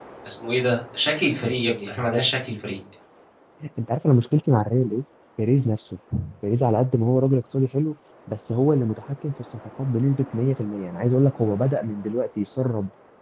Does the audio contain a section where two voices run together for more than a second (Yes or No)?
No